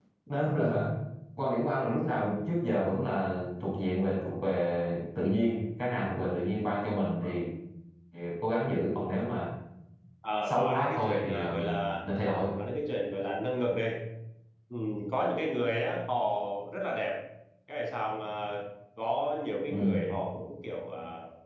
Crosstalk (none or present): present